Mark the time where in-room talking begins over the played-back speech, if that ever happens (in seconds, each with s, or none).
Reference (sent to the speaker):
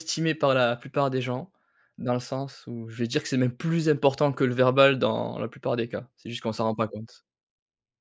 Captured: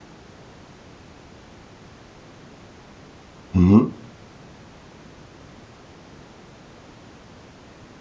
3.5 s